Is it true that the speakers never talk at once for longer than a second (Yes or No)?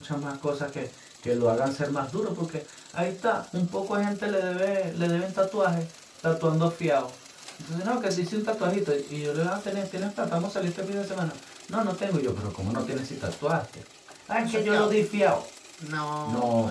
Yes